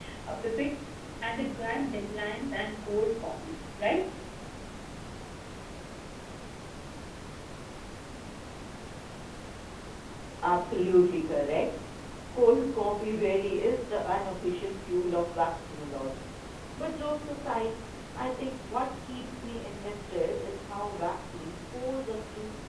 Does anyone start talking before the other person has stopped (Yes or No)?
No